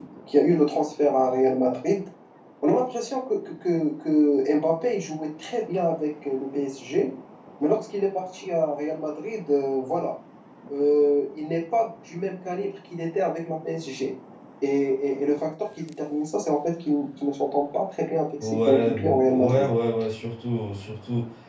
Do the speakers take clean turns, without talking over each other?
No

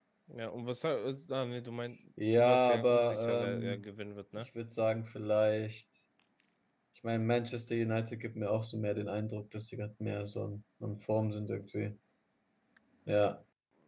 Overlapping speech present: Yes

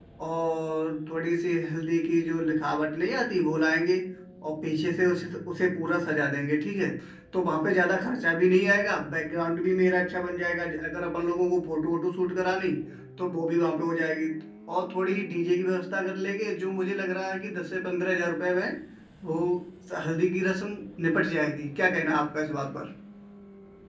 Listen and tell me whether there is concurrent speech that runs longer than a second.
No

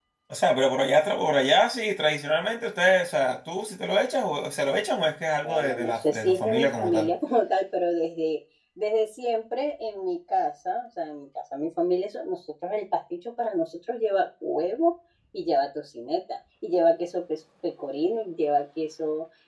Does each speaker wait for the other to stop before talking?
No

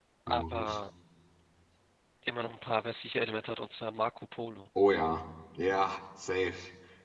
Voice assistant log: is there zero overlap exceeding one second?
Yes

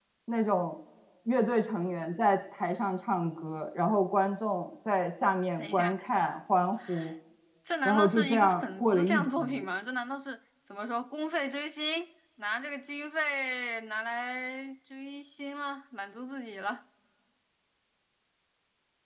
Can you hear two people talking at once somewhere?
Yes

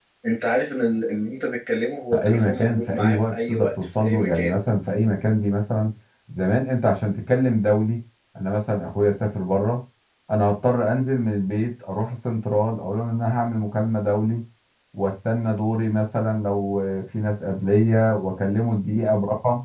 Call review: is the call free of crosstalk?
No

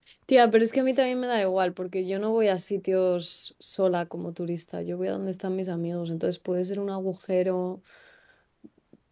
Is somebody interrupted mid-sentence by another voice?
No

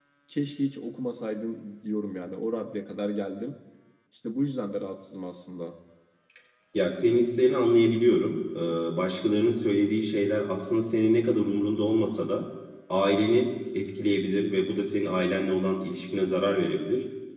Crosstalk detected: No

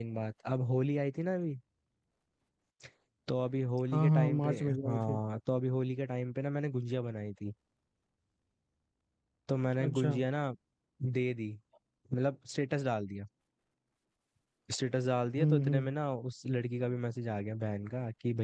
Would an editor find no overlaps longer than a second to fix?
No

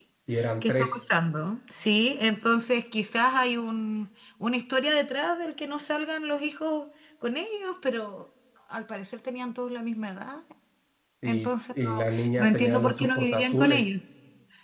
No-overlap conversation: No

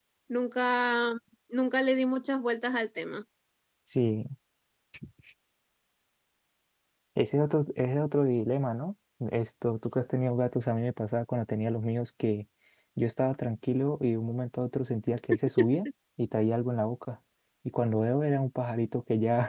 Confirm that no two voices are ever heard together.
Yes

